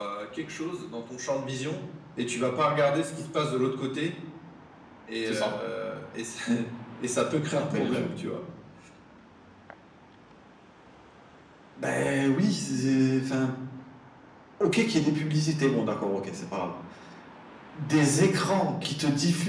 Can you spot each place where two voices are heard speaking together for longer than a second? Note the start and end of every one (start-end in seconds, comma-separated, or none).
none